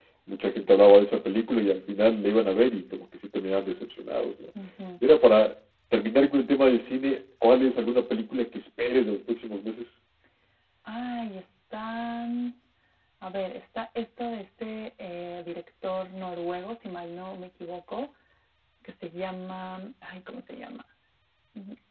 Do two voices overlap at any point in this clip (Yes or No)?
No